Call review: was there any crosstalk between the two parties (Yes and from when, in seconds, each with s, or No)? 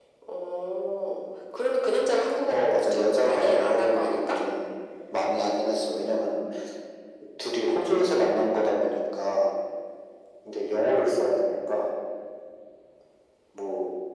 Yes, from 2.5 s